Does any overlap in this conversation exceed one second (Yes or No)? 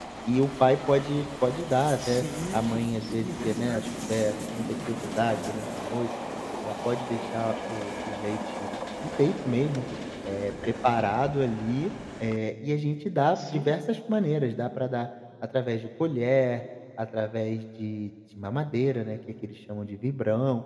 Yes